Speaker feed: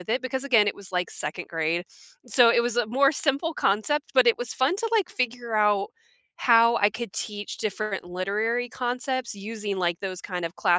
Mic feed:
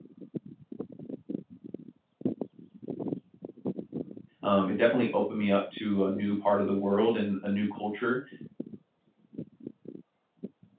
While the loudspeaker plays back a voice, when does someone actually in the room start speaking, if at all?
4.4 s

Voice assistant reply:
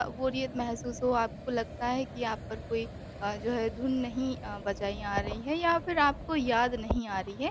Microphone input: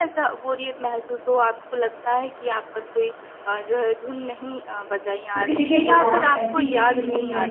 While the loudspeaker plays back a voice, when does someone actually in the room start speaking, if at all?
5.3 s

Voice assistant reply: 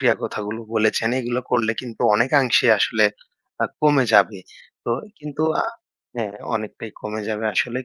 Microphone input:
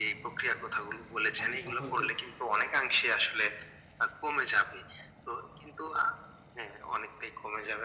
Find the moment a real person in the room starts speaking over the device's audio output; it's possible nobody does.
1.4 s

